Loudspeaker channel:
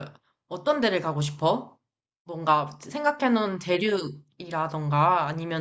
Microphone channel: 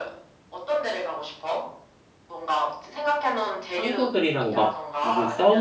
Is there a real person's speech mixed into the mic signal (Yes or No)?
Yes